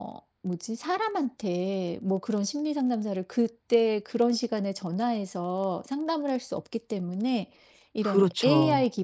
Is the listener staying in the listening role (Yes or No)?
Yes